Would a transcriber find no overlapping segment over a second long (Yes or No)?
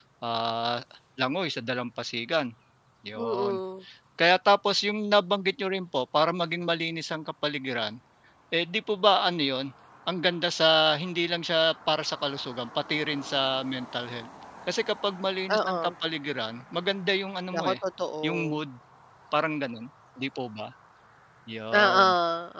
Yes